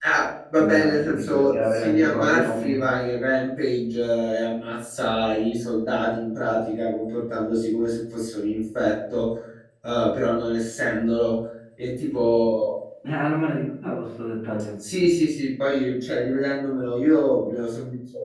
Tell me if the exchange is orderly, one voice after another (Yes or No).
No